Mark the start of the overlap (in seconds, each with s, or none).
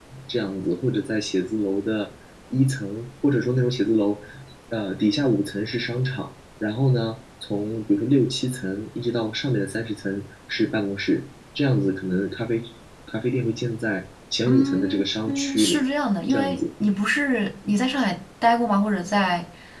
14.5 s